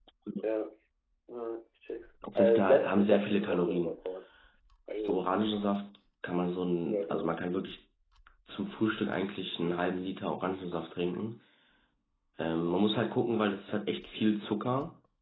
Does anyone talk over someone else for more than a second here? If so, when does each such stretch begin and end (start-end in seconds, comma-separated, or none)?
2.4-4.0